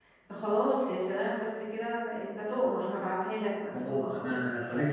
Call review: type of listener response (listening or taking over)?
taking over